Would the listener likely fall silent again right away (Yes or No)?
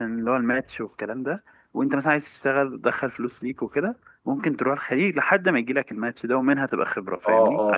No